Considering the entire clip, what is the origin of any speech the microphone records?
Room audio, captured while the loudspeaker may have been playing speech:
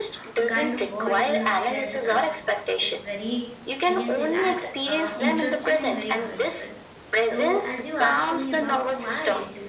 both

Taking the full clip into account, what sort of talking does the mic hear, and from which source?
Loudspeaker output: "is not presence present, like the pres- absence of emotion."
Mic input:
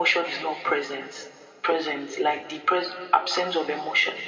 echo only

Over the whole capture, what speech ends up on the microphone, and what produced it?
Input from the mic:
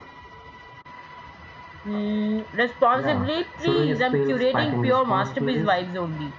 echo only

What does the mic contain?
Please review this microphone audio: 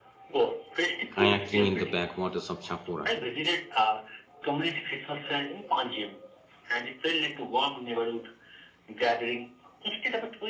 both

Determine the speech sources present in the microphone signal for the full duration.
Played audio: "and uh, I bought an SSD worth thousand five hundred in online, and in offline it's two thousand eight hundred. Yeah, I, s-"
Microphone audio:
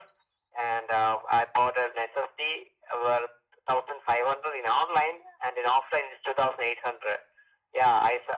echo only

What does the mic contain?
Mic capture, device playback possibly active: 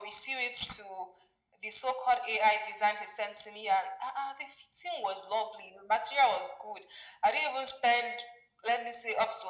echo only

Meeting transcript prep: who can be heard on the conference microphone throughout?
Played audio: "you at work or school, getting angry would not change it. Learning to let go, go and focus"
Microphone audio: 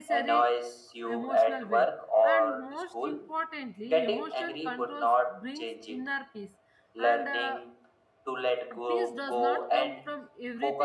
both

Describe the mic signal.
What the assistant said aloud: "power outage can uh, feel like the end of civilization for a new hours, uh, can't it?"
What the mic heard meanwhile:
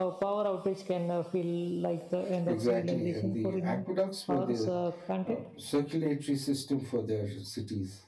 both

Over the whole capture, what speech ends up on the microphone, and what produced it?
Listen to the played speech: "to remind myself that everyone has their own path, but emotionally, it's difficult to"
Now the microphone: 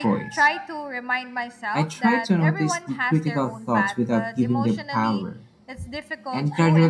both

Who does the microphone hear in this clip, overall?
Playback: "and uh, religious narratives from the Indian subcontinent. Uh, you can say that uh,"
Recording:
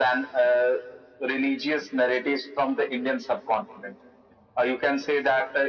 echo only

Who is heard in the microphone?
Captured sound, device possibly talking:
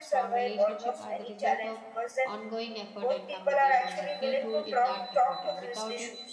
both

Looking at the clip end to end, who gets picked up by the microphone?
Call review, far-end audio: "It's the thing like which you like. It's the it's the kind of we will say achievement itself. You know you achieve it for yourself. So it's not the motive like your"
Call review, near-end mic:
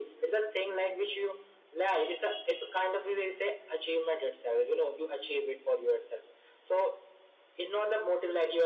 echo only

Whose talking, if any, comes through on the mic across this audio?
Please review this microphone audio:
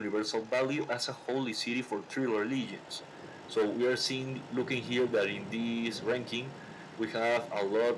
echo only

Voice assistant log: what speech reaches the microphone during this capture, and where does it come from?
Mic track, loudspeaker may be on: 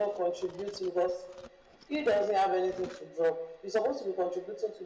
echo only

